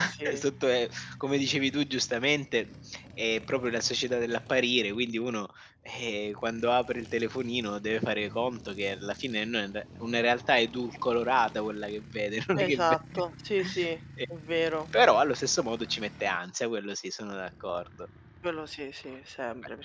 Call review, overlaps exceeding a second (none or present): none